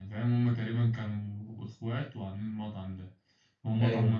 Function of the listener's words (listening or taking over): listening